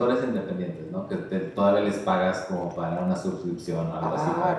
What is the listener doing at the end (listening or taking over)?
taking over